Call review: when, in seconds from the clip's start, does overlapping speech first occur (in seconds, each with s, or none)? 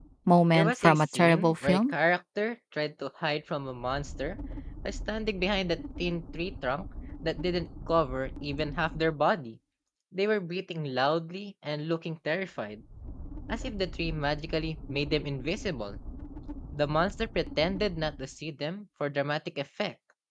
0.5 s